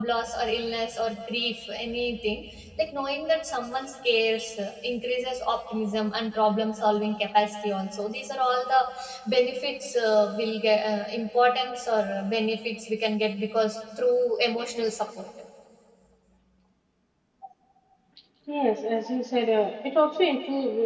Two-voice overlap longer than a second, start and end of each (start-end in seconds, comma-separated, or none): none